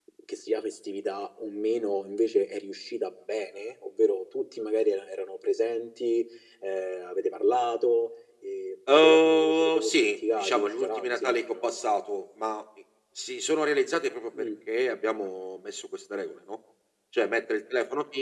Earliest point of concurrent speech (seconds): 8.9 s

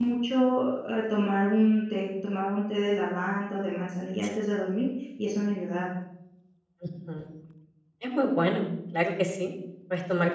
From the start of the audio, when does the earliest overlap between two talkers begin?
none

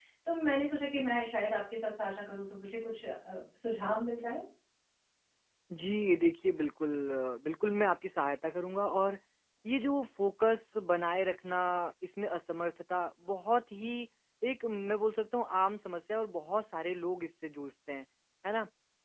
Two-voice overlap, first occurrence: none

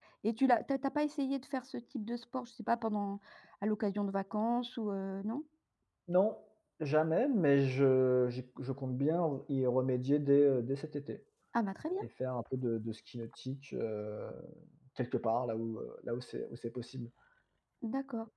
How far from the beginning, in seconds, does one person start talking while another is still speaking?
none

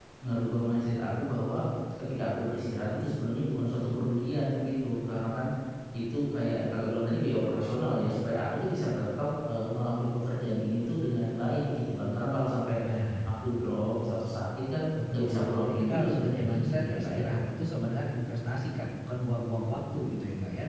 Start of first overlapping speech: 14.9 s

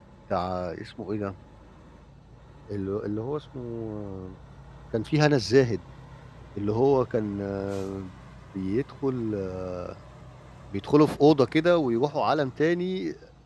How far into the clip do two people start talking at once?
none

